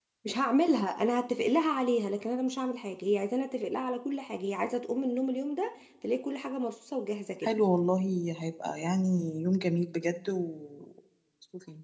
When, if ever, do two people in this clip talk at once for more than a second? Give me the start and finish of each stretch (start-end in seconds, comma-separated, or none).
none